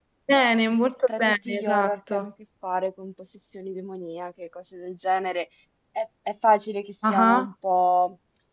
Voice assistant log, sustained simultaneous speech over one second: present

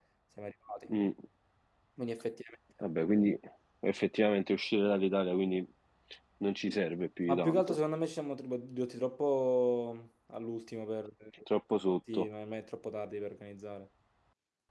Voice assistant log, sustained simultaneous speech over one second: none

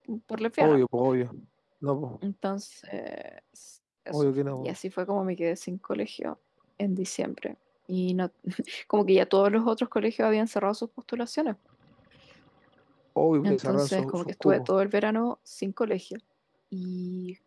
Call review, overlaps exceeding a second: present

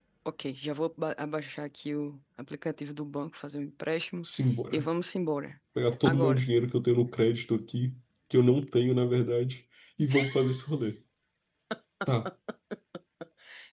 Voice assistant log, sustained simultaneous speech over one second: none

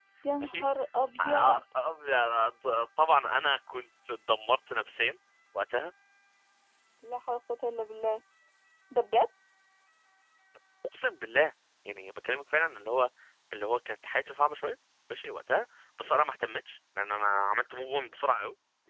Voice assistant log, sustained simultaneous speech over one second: none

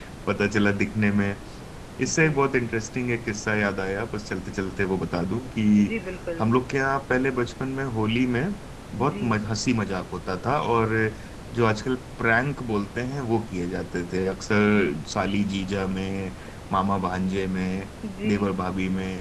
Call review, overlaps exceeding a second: none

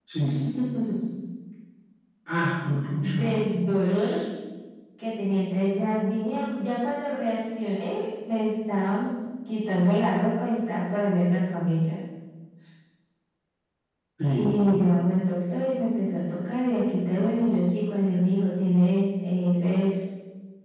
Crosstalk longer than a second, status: none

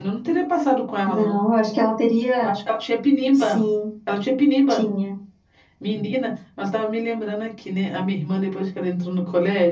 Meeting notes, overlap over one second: none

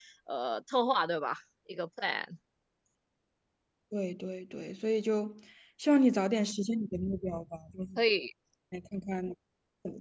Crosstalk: none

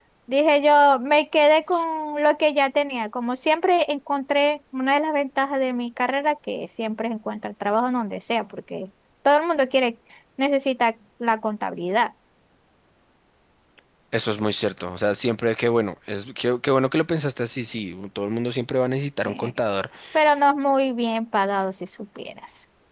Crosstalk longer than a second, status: none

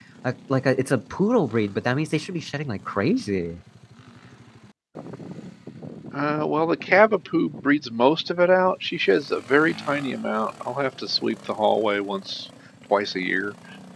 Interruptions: none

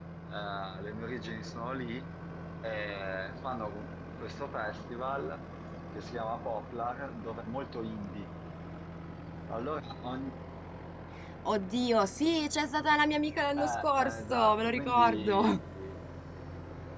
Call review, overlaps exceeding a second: present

